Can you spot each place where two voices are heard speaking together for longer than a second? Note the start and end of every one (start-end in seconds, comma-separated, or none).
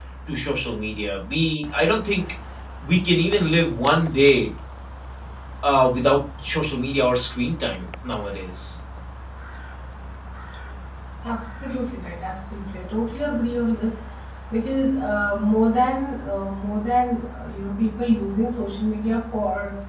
none